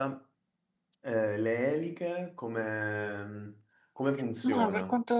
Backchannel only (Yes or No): No